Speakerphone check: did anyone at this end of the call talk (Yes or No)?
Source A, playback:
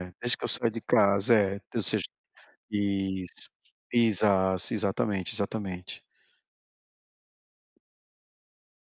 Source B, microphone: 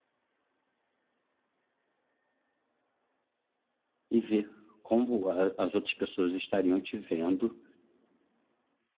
Yes